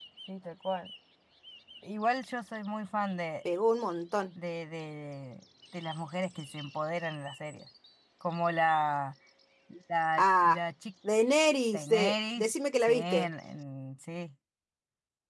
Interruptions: present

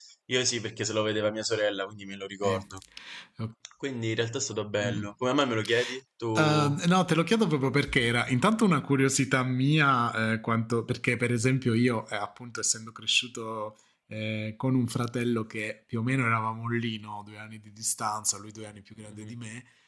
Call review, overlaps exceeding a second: none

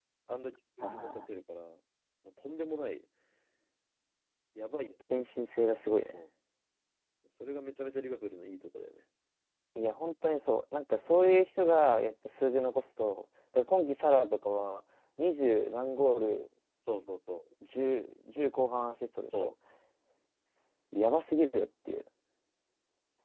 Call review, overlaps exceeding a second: none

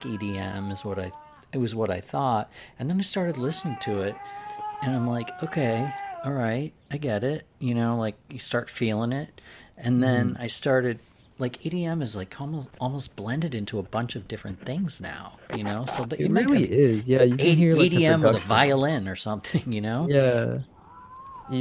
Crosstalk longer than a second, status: present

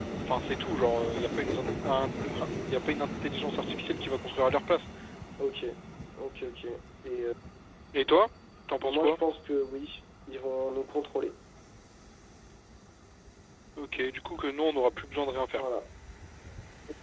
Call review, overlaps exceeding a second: none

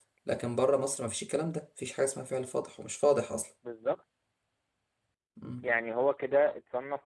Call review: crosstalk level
none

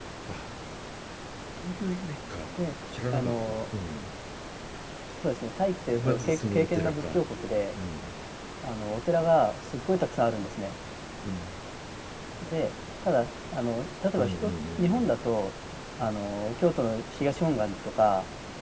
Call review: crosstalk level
present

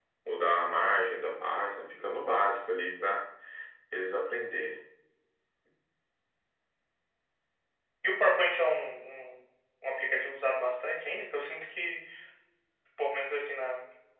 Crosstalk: none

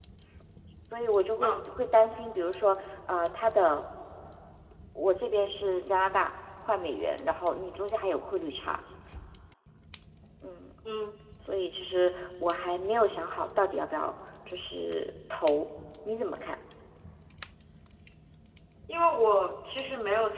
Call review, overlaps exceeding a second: none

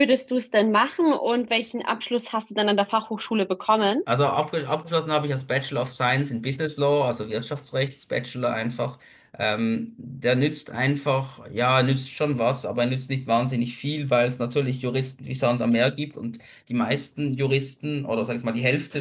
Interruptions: none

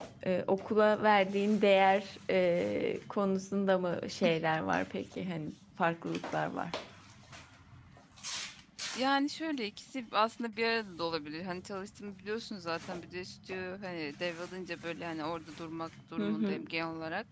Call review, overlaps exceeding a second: none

